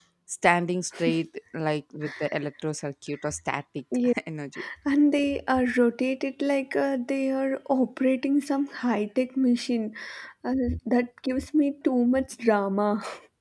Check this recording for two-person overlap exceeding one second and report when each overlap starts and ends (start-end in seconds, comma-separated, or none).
none